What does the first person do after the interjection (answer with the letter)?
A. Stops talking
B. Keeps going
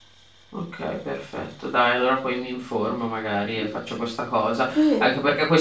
B